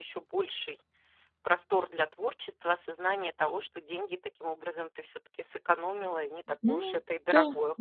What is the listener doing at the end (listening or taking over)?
taking over